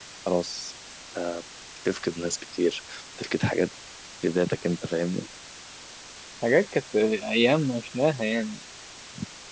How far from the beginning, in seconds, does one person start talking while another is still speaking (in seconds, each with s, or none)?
none